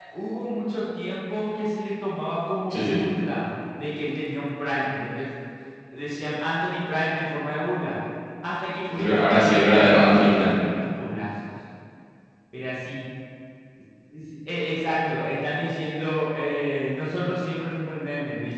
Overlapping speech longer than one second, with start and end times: 9.0-10.6

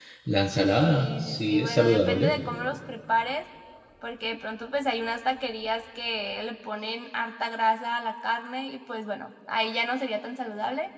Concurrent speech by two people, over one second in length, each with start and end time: 0.8-2.4

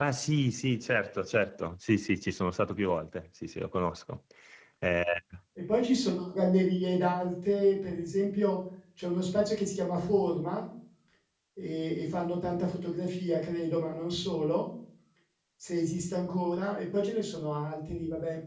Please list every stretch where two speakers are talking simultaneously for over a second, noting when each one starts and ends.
none

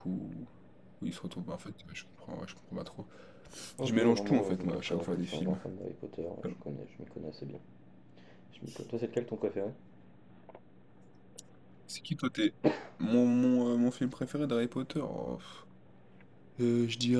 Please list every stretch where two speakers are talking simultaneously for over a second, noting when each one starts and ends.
3.8-5.6

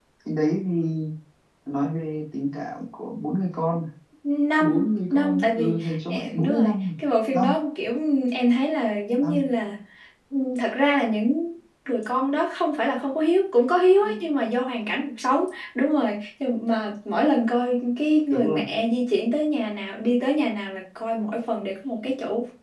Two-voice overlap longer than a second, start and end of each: 4.6-6.8

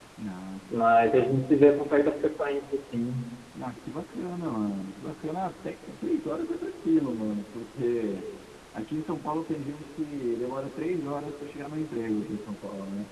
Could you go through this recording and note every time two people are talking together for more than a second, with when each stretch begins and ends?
none

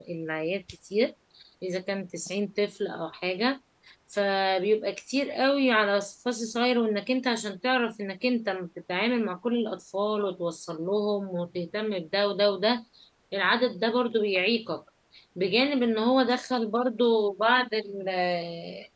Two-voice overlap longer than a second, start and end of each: none

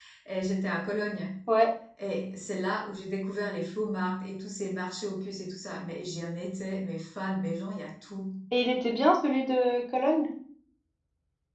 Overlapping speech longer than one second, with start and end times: none

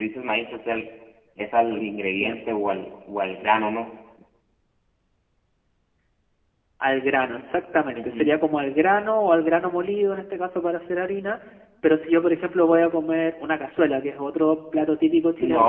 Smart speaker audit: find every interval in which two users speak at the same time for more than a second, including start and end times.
none

